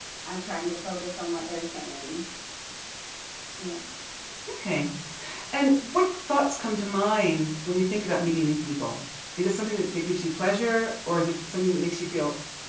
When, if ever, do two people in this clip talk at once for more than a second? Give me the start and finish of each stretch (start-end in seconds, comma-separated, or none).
none